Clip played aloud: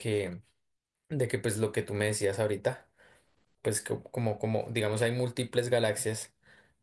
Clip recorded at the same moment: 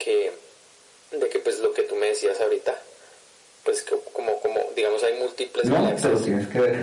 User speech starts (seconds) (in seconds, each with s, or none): 5.6 s